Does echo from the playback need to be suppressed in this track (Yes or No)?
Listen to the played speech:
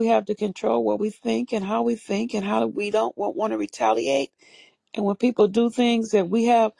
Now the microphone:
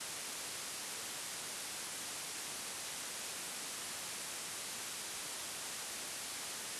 No